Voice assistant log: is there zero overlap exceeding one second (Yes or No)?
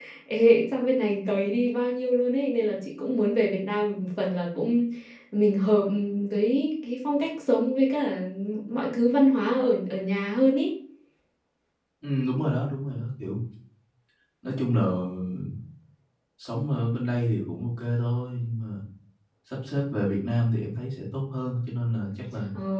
Yes